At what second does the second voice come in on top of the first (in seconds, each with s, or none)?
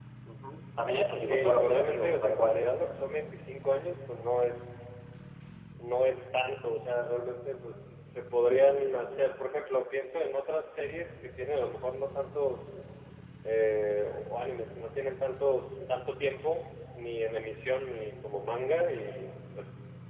0.9 s